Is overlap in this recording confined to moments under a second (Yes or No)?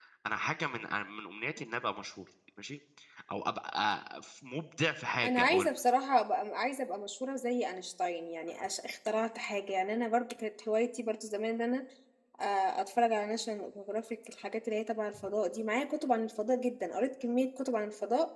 Yes